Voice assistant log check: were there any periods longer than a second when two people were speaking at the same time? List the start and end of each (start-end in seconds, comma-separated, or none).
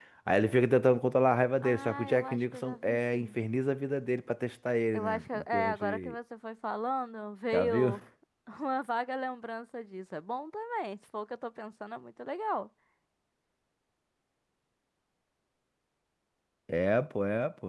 1.6-3.4, 4.9-6.2